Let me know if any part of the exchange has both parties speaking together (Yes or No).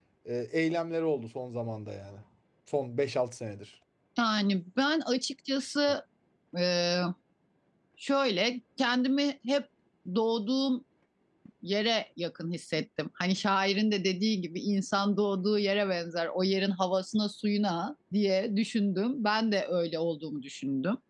No